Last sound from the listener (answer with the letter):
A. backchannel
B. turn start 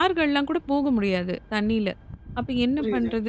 A